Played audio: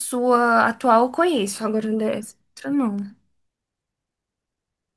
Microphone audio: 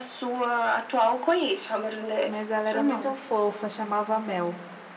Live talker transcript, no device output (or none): Mas ela era muito fofa, chamava Mel.